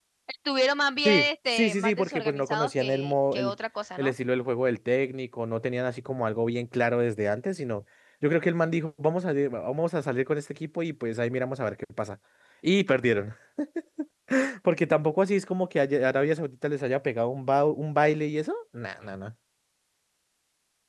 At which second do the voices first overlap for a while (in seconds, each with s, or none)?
1.1 s